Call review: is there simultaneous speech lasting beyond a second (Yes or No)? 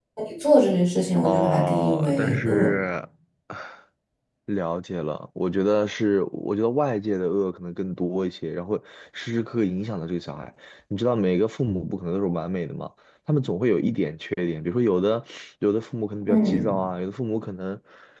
Yes